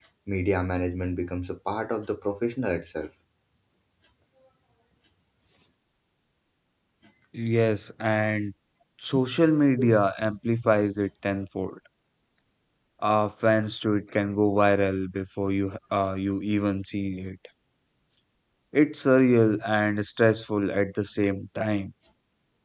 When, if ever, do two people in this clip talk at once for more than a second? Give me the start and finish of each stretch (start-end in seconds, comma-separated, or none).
none